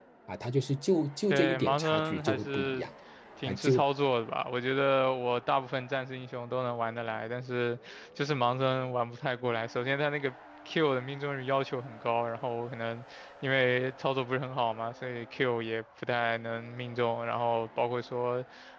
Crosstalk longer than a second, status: present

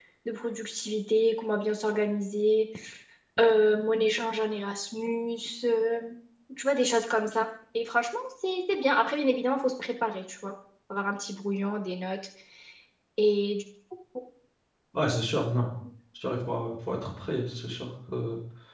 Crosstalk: none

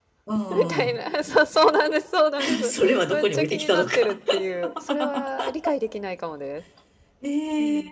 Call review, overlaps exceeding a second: present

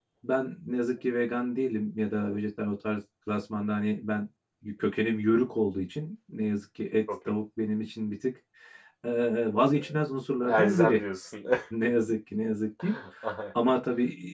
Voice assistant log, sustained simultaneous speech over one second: none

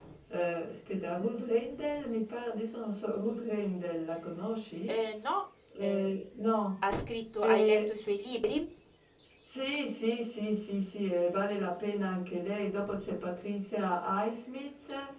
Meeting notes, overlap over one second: none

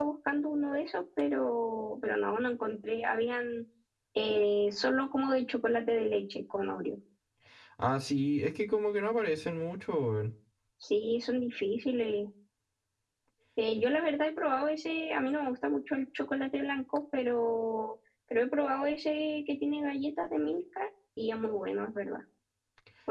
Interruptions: none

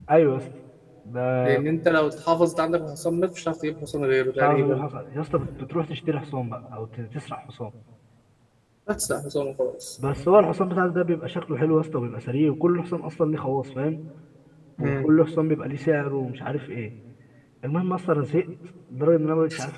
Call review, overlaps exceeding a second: none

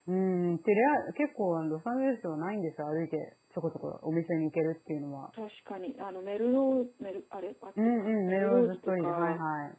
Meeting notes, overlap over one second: present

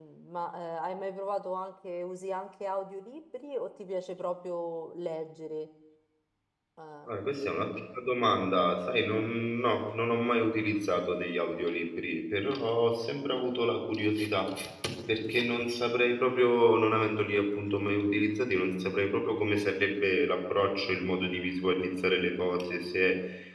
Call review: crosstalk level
none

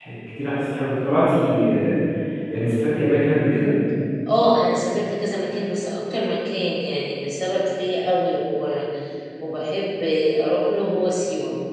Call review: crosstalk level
none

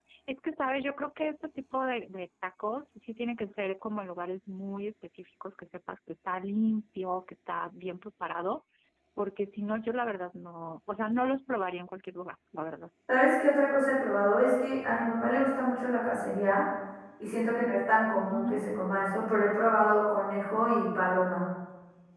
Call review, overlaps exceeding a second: none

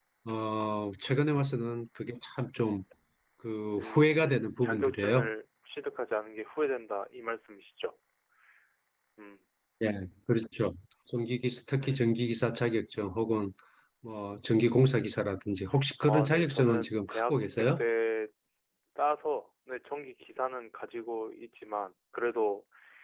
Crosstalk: present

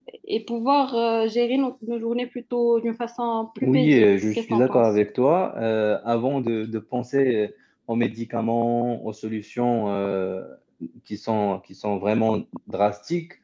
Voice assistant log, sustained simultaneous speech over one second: present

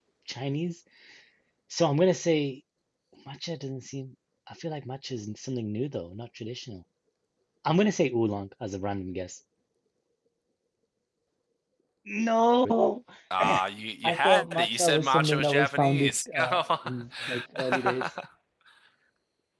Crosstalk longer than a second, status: present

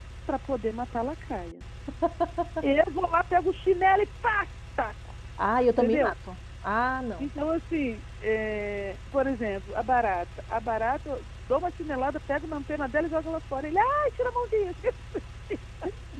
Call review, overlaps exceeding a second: none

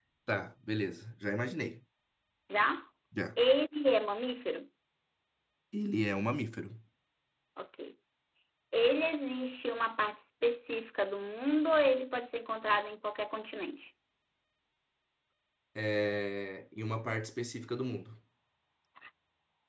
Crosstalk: none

